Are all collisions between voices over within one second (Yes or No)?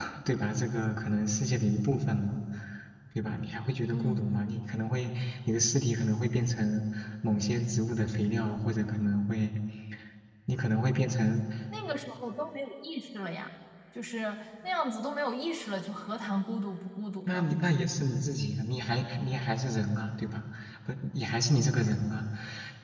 Yes